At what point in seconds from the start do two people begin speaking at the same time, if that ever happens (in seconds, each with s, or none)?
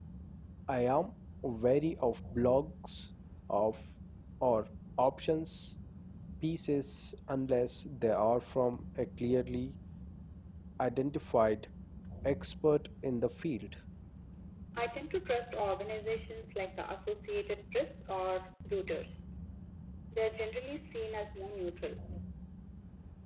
none